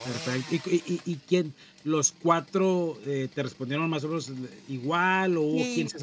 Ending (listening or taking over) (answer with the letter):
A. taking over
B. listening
A